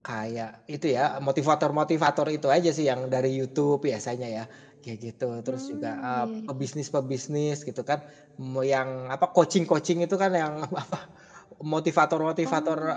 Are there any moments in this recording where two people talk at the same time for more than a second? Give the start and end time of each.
5.5-6.7

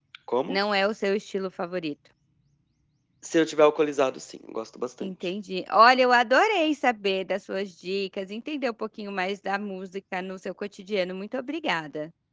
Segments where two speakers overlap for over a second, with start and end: none

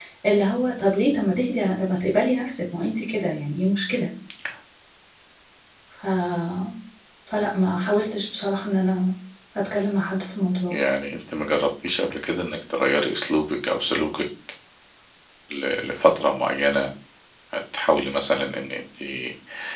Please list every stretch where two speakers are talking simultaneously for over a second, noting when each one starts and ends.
none

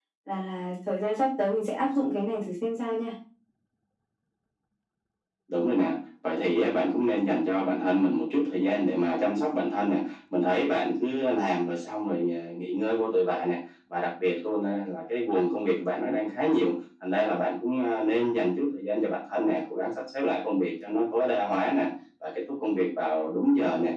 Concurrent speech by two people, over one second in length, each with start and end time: none

